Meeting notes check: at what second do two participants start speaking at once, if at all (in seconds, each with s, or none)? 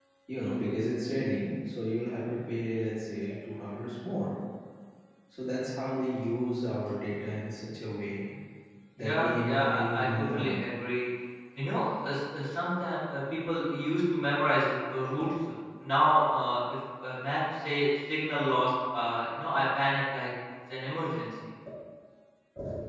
9.0 s